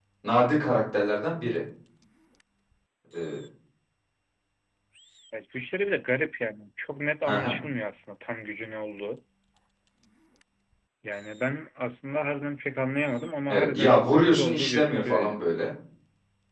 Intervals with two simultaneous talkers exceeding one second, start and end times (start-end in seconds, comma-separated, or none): 13.5-15.5